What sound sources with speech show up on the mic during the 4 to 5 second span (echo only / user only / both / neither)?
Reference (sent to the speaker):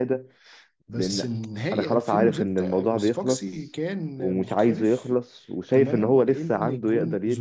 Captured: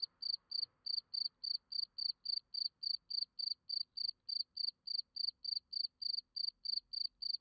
neither